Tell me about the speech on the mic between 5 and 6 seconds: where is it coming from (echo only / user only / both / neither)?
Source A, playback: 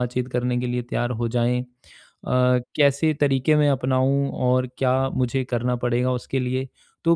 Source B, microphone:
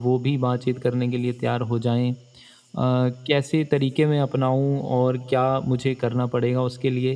echo only